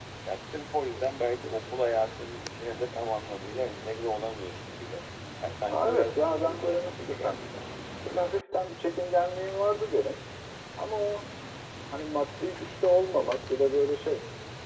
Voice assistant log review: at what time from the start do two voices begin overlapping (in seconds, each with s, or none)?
5.7 s